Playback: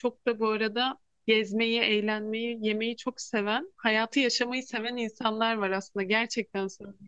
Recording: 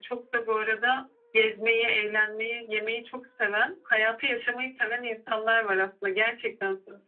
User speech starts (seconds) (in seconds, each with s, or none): none